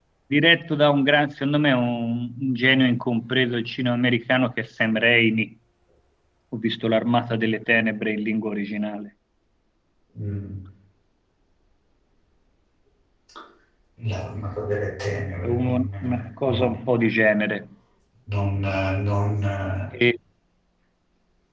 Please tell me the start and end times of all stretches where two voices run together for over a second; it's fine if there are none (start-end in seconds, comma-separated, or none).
15.4-16.7